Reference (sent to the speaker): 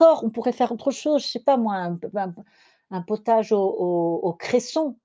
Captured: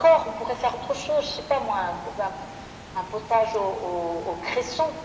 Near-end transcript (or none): none